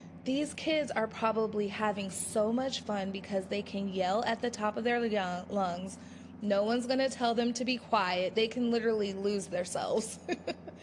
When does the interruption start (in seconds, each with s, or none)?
none